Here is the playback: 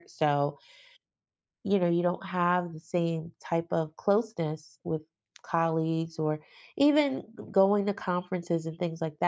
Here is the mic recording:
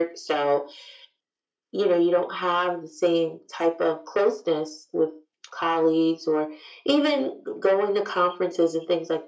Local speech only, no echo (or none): none